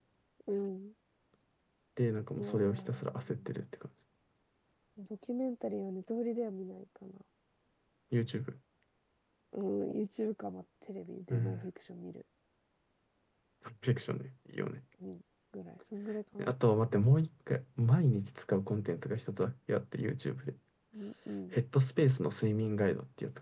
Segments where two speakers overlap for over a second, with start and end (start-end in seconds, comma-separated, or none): 2.4-3.6